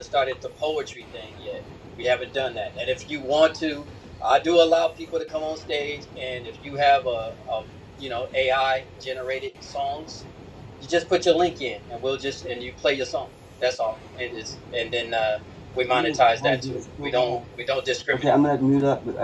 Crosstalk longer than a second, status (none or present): present